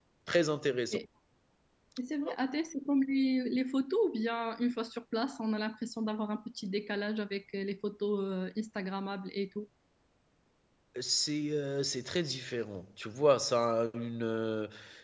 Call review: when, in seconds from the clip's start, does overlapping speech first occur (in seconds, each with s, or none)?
none